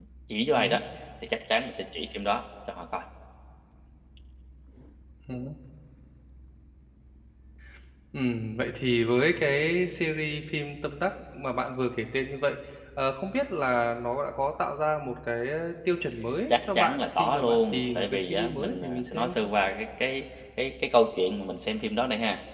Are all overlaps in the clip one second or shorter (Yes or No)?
No